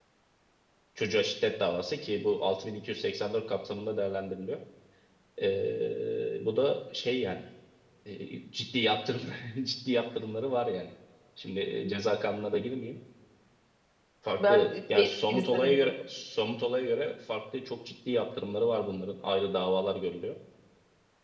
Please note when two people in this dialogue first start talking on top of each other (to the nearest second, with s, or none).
14 s